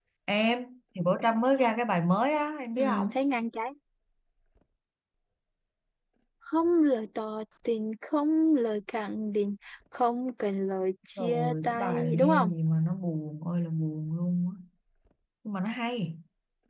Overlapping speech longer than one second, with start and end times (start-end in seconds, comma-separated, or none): 11.2-12.5